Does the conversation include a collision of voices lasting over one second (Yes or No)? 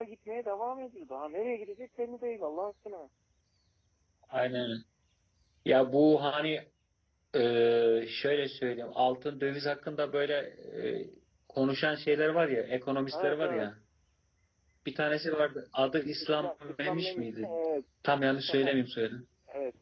Yes